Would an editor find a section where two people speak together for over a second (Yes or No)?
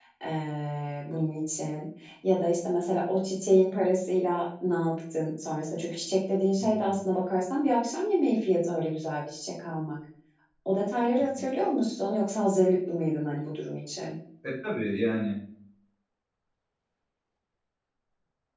No